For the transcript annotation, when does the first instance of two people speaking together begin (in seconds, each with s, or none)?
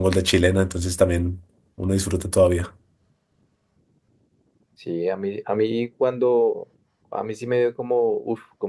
none